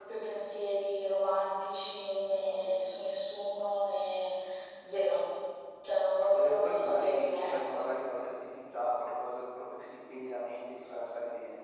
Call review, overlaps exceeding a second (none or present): present